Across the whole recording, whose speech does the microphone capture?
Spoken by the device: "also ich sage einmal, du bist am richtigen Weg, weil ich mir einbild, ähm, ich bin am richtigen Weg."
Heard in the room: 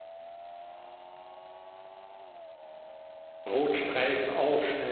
user only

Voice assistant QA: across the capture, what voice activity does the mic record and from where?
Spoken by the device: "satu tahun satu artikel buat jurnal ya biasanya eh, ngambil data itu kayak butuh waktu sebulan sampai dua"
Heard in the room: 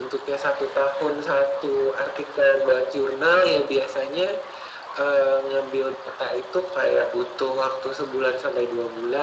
echo only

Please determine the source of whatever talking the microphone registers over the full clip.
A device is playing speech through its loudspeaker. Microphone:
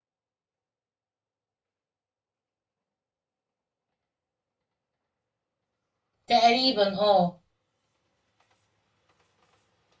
user only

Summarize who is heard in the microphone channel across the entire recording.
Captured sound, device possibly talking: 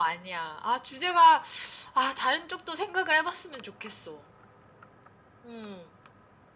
echo only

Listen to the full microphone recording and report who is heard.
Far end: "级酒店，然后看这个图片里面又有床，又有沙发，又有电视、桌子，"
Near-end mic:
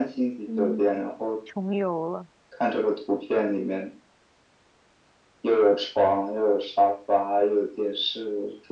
both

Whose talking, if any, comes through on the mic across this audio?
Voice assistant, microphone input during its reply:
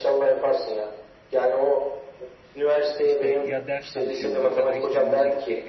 both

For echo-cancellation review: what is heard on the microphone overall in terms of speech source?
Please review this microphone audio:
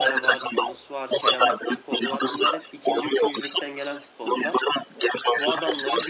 both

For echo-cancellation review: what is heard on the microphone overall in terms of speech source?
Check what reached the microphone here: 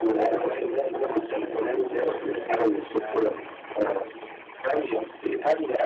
both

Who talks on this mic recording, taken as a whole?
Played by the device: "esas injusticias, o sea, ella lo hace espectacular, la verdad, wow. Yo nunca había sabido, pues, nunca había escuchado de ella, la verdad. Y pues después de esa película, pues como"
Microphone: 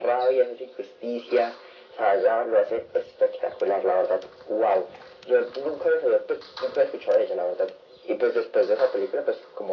echo only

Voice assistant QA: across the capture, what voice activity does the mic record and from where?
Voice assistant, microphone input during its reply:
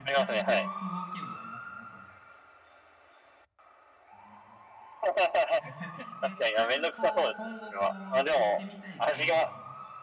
both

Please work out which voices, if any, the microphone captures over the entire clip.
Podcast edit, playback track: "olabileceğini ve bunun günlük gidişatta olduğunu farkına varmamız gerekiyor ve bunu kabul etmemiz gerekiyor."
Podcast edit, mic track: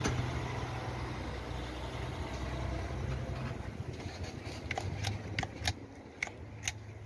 neither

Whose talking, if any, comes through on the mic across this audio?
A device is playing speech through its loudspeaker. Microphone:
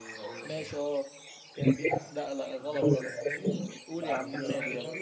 both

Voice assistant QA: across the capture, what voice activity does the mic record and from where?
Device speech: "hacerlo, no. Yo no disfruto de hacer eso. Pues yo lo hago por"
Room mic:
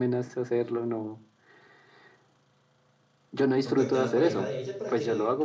both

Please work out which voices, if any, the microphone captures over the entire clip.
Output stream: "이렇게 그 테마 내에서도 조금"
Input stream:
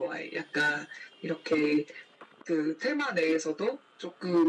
echo only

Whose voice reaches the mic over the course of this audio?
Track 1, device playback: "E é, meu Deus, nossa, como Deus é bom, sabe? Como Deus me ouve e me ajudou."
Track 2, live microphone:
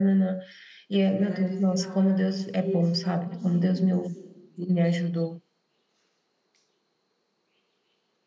both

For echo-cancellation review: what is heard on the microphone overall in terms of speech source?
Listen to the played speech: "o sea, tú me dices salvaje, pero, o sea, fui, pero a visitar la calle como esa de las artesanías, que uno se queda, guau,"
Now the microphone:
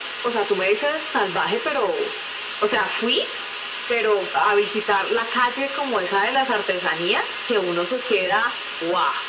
echo only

